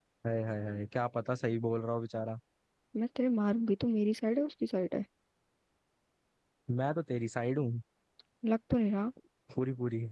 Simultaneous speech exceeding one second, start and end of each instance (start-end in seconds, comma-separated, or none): none